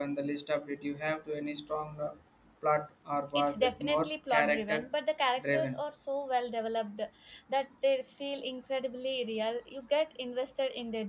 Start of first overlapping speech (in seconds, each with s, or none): 3.4 s